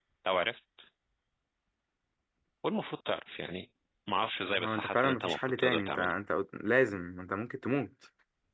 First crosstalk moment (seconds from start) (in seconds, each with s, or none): 4.6 s